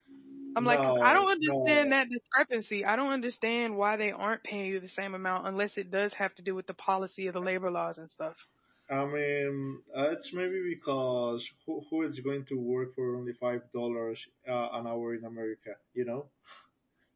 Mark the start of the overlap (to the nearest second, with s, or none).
1 s